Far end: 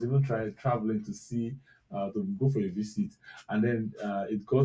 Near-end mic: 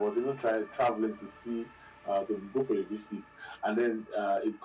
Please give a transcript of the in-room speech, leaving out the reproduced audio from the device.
none

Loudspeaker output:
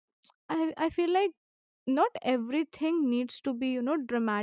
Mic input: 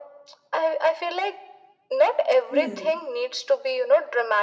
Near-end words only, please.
Hmm.

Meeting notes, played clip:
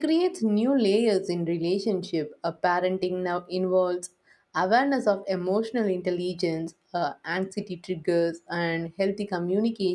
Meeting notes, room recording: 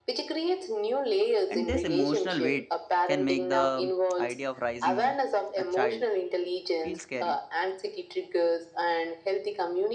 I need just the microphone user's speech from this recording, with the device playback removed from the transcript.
And this emotional weight can make the idea of raising a child feel scary.

